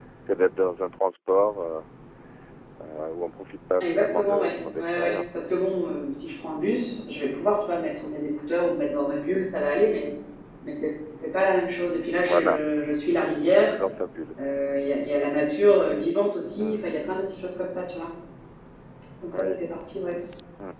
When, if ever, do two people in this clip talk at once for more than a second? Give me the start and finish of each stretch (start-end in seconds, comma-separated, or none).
3.8-5.2